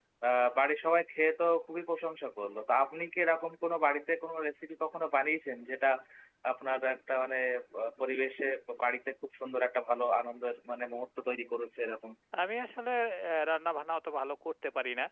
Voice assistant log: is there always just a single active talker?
Yes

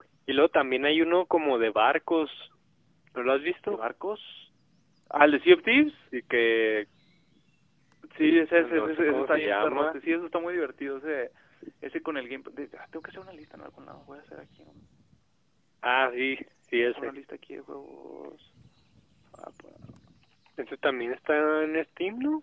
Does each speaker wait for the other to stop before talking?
No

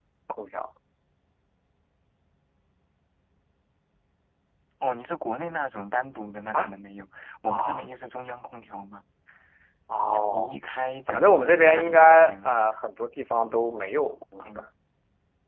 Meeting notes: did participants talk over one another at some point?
Yes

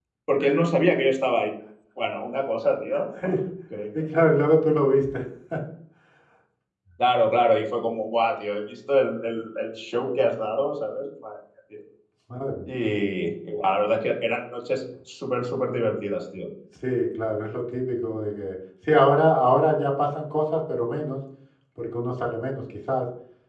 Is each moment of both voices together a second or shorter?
Yes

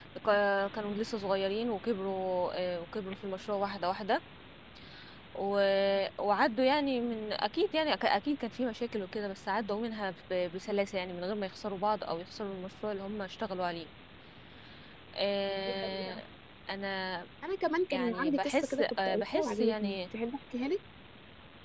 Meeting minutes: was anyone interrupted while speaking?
Yes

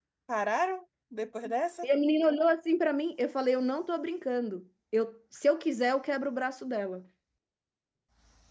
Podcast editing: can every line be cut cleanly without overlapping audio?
Yes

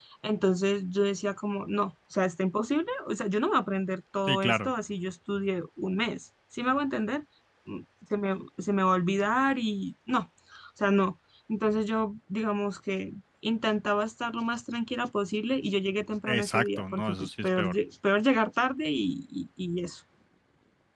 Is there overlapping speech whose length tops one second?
Yes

